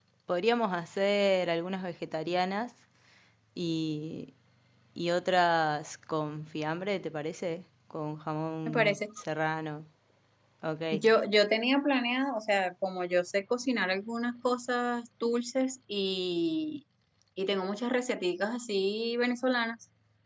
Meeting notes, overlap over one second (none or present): none